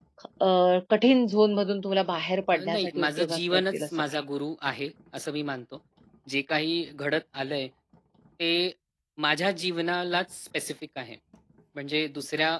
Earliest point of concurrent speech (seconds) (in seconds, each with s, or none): 2.5 s